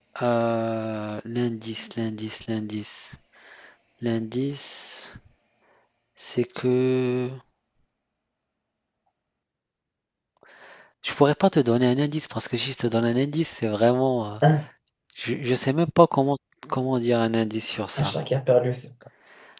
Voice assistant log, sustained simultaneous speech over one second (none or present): none